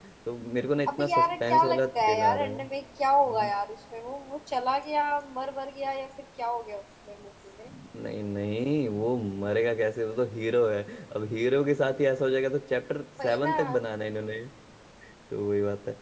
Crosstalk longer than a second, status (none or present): present